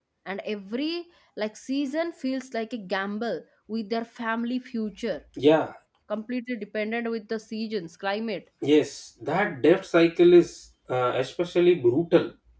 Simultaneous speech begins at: none

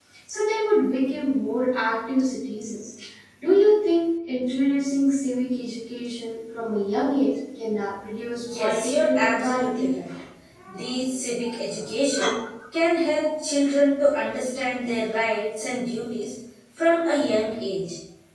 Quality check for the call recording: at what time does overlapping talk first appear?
8.6 s

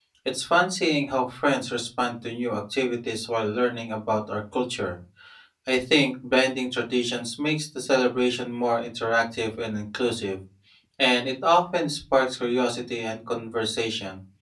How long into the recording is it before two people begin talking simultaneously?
none

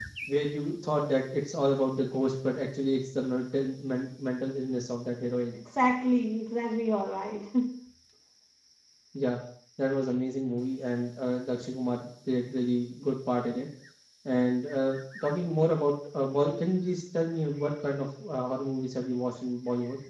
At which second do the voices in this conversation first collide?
none

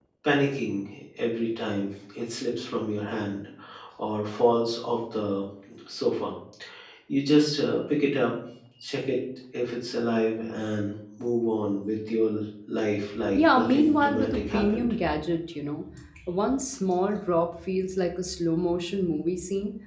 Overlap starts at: 13.2 s

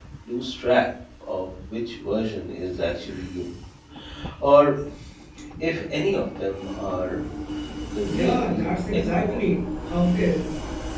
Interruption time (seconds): 8.1 s

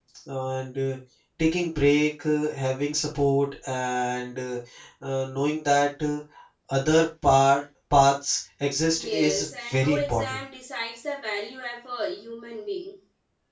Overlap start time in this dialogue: 8.9 s

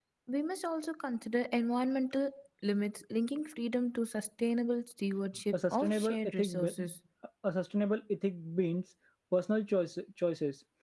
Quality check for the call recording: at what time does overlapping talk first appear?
5.5 s

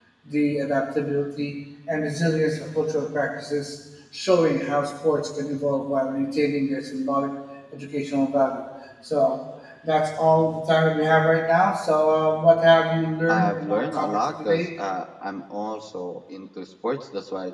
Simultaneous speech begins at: 13.3 s

